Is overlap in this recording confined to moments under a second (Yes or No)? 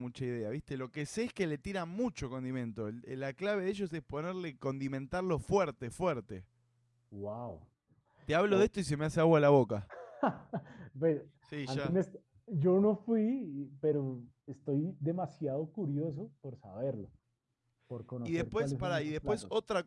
No